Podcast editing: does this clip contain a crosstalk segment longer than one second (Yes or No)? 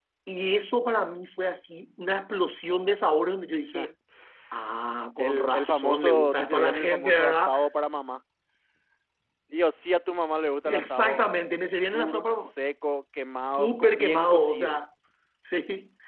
Yes